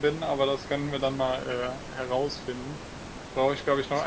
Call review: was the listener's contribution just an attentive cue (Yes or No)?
Yes